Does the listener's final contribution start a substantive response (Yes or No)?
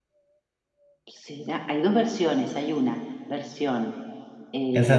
Yes